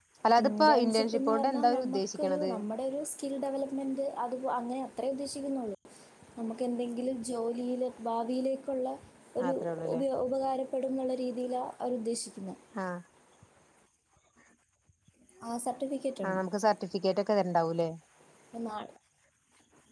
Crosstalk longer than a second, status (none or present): present